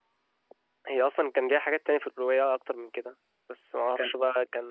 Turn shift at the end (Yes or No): No